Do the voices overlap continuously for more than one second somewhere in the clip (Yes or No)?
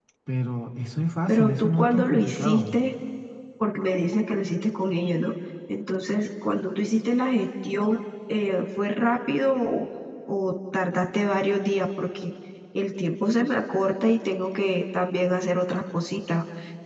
Yes